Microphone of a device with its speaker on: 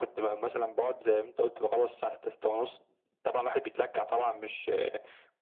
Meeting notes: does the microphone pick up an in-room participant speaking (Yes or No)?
No